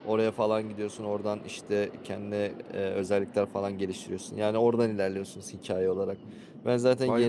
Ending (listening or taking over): listening